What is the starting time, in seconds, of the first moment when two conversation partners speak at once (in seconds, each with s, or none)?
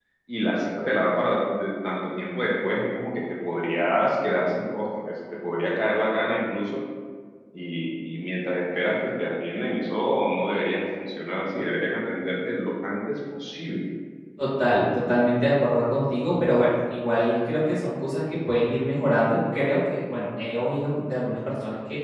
none